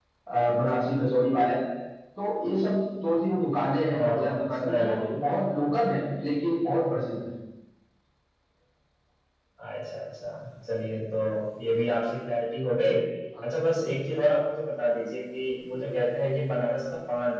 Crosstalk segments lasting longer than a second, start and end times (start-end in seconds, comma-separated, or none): 3.9-5.1